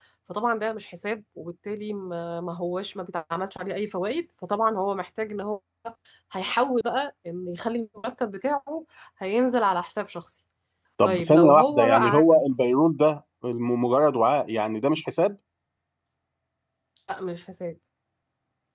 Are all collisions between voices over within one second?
No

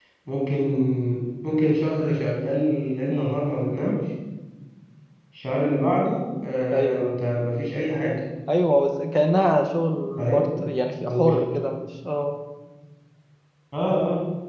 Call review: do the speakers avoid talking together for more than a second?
Yes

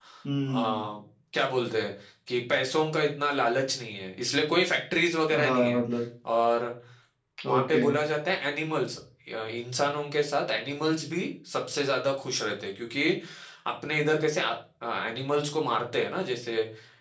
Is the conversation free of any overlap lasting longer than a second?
Yes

